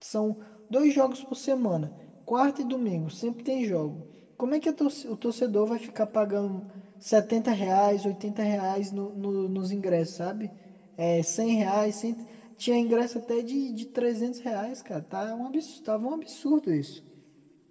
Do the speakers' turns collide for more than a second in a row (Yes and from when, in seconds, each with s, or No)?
No